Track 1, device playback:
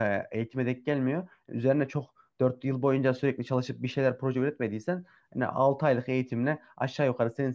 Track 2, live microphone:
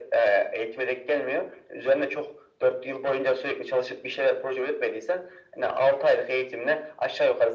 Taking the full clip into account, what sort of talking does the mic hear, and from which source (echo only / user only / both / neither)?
echo only